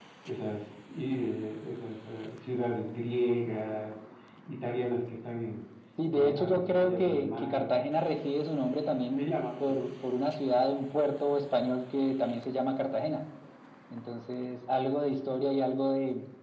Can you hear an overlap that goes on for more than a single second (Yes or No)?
Yes